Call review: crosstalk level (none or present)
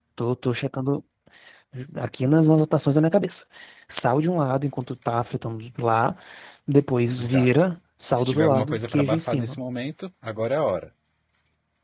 present